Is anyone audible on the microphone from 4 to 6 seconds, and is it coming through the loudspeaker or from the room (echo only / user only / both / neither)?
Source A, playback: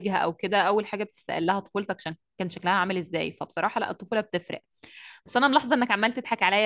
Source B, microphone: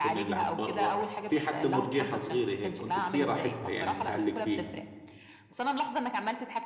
both